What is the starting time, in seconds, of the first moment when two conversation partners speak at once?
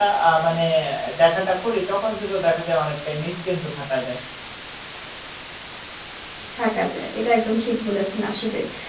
none

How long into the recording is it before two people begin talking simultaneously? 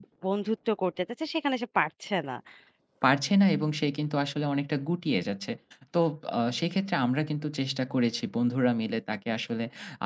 none

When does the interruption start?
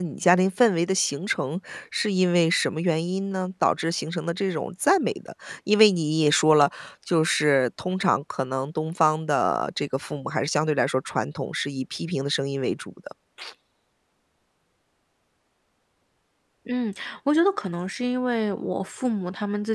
none

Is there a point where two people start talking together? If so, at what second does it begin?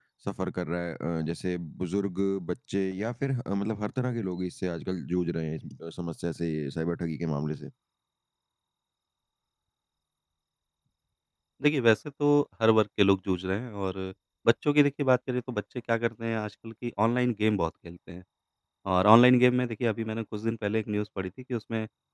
none

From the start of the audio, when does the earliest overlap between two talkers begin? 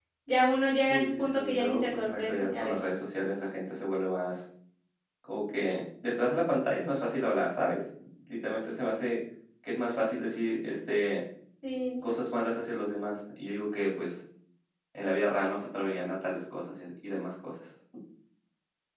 0.9 s

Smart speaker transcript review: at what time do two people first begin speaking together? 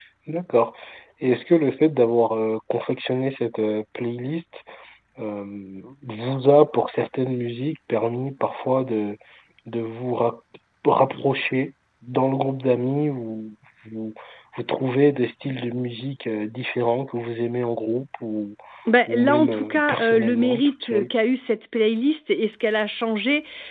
19.1 s

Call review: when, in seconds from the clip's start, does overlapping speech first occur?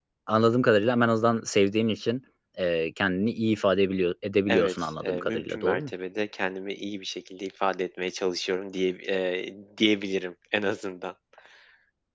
4.5 s

